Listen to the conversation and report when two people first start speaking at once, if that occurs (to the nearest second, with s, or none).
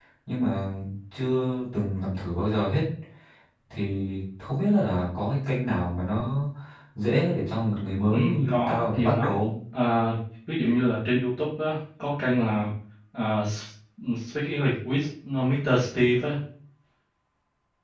8 s